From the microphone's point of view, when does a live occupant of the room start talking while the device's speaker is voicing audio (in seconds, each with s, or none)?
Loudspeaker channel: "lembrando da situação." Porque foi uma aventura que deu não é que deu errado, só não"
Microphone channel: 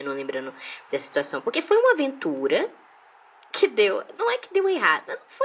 none